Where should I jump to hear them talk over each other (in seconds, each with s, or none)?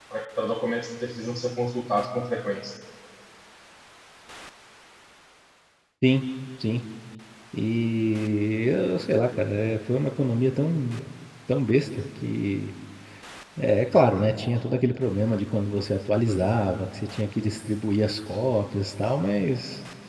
none